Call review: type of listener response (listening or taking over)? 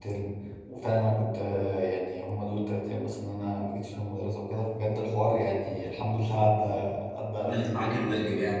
taking over